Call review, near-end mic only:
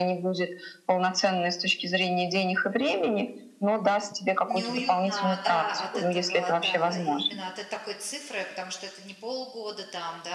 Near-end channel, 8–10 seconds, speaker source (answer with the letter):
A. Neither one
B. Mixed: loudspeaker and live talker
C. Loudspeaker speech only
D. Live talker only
D